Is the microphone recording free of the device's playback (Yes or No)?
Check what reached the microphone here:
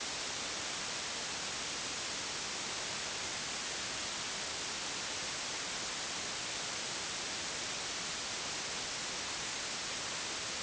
Yes